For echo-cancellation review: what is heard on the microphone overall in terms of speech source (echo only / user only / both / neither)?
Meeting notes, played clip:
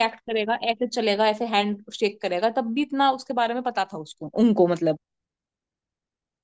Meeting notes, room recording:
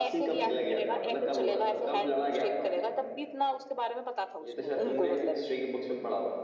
both